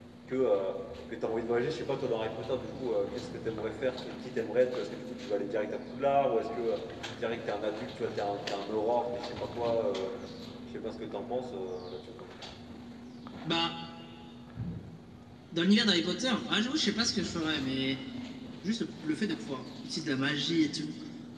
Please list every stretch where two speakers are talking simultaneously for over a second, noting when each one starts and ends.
none

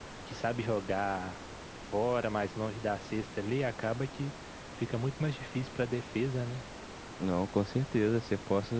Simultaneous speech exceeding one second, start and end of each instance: none

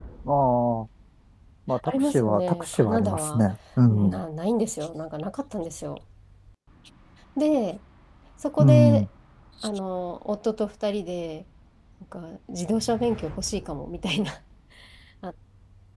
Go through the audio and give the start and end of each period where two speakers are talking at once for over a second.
1.8-3.4

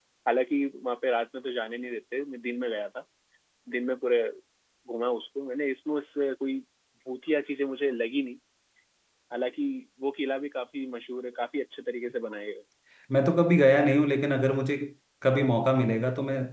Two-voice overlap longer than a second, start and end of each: none

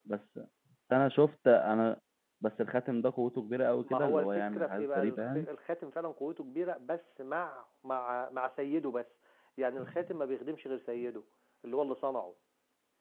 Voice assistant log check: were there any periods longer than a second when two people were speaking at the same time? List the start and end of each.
3.9-5.5

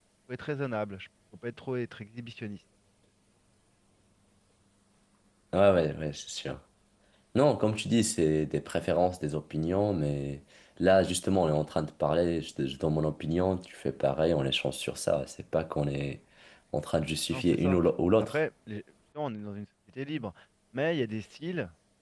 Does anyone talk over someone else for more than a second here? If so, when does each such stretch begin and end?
none

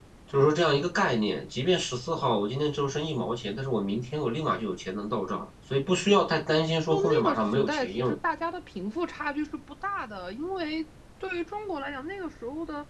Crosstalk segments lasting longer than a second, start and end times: 6.9-8.2

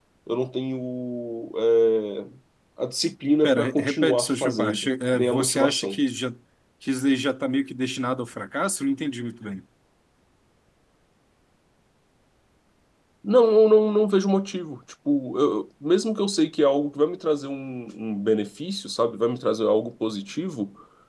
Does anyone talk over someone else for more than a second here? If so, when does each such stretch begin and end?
3.4-6.0

